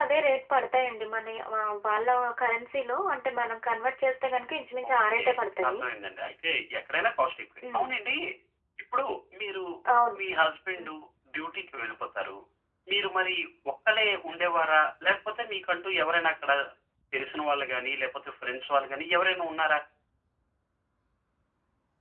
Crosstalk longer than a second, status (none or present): none